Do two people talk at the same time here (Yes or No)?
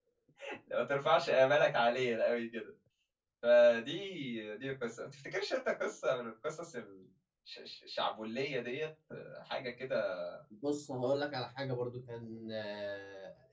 No